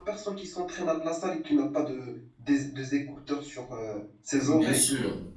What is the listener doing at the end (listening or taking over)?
taking over